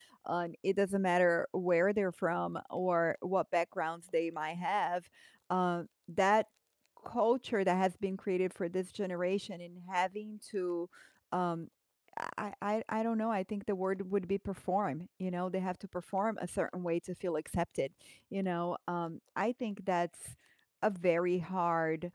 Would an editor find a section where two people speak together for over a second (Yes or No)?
No